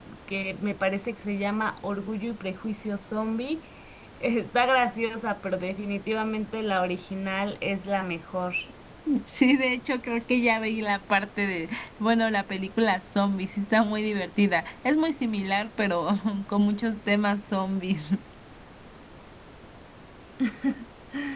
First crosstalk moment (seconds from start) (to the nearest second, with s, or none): none